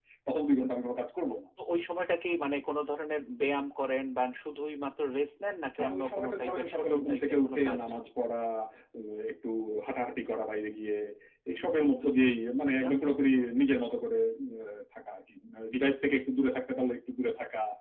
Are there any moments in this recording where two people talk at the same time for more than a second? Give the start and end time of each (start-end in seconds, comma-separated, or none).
5.8-7.8